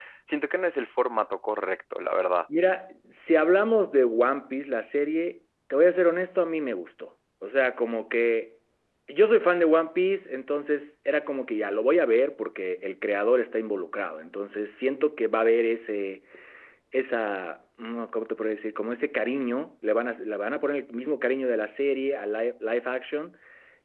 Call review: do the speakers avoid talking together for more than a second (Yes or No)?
Yes